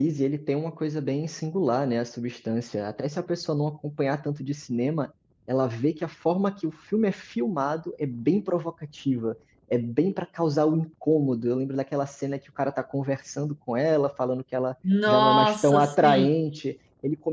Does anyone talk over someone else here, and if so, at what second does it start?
14.8 s

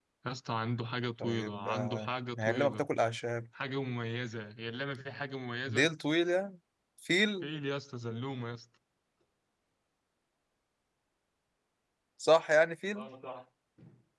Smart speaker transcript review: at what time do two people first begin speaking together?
1.2 s

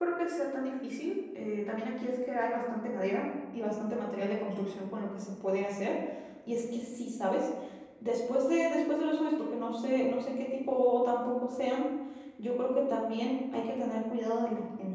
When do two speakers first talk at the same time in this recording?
none

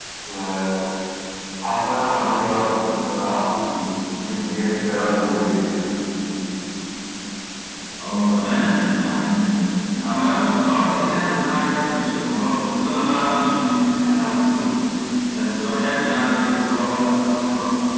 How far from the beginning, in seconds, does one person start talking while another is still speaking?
none

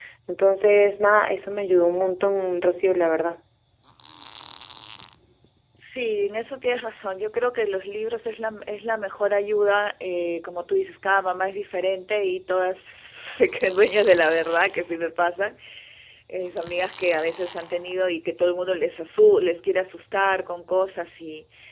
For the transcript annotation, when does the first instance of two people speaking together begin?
none

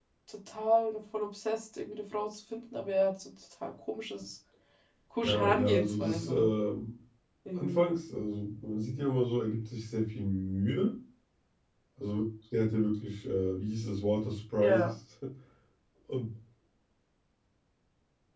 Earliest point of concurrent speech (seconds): 5.2 s

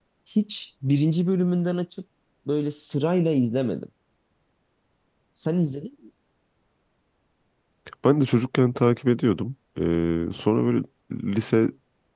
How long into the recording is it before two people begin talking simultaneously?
none

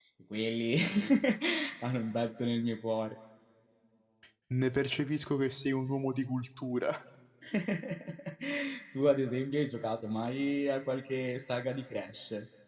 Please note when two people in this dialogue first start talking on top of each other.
none

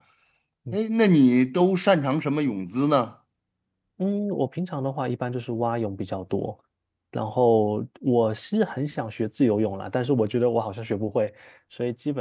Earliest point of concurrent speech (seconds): none

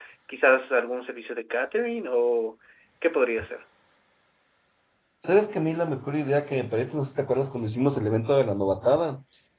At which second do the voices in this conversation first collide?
none

